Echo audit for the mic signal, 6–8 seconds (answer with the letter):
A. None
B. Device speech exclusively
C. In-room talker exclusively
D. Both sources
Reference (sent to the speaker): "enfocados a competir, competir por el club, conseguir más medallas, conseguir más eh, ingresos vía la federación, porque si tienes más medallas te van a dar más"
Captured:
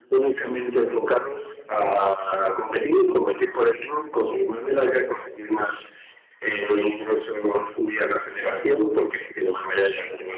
B